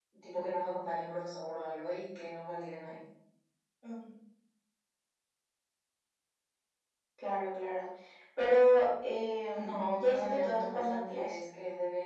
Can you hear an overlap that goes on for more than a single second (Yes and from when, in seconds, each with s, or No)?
Yes, from 9.5 s